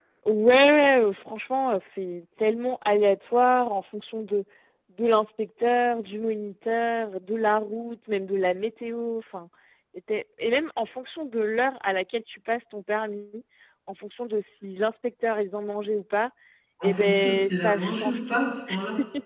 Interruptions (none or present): present